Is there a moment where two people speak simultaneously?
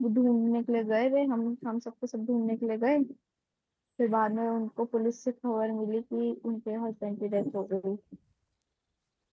No

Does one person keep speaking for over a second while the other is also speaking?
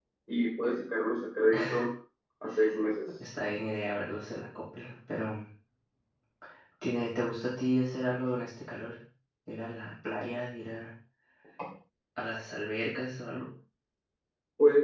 No

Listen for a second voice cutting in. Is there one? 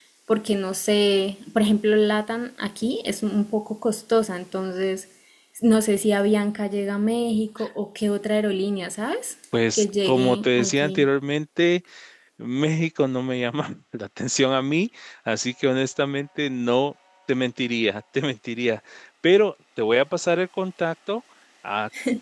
Yes, from 9.5 s

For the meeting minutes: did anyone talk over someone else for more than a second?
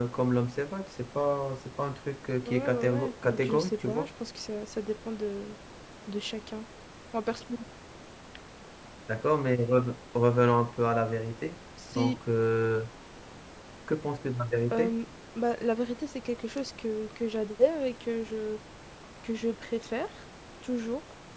Yes, from 2.5 s

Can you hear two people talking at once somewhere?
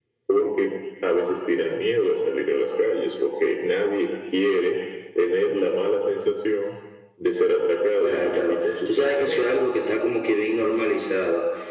Yes, from 8.0 s

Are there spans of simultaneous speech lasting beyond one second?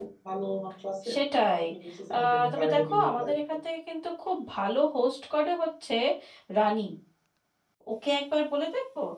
Yes, from 2.1 s

